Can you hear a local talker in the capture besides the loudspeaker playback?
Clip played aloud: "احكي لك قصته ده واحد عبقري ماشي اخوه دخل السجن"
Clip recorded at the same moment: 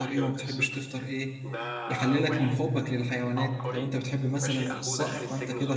Yes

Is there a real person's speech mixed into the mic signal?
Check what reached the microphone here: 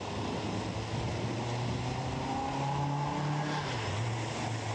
No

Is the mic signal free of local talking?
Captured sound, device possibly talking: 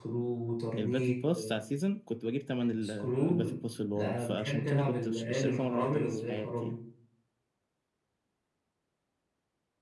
No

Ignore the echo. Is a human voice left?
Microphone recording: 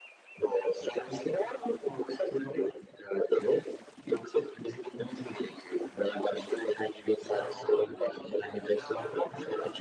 Yes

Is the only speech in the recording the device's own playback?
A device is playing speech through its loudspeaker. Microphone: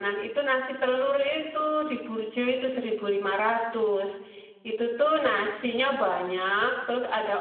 No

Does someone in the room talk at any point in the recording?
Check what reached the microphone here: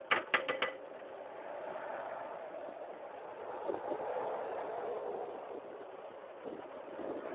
No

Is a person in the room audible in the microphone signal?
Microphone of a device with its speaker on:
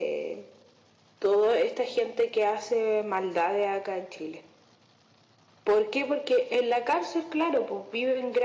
No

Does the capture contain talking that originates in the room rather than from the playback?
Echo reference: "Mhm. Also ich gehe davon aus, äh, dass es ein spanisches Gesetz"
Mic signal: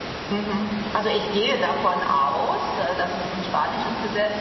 No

